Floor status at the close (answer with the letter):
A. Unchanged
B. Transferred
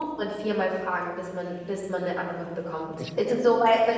A